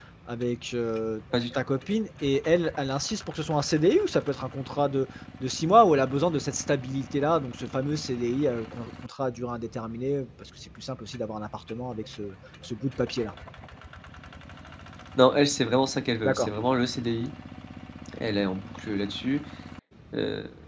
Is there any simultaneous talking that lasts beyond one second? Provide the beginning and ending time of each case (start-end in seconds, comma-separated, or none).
none